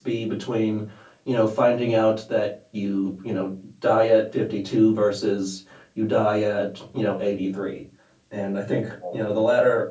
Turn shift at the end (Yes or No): No